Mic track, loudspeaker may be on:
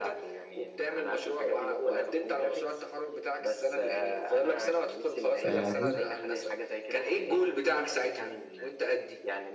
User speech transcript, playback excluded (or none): آه، بص